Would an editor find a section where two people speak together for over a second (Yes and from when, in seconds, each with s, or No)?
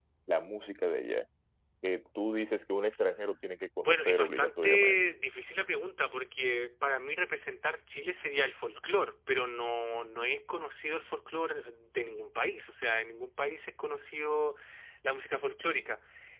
Yes, from 3.8 s